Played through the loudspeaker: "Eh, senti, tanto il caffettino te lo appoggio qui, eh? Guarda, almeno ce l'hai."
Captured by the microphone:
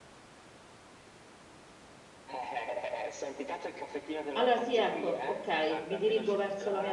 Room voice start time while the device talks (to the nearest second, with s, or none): 4 s